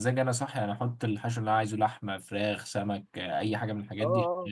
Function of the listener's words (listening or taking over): taking over